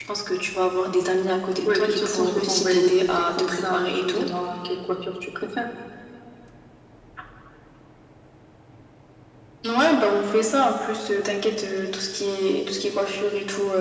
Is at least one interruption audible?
Yes, from 1.6 s

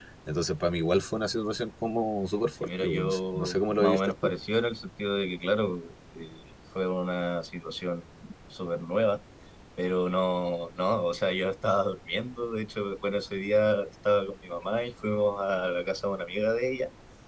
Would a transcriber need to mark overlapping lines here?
Yes, from 2.6 s

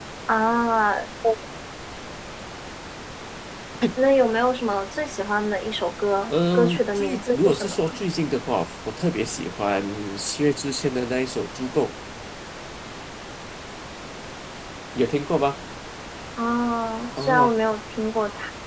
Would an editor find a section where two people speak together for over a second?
Yes, from 6.3 s

